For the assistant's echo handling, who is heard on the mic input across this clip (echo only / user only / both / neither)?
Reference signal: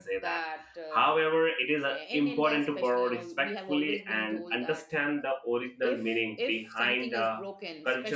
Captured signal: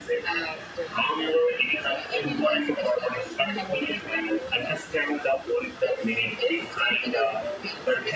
echo only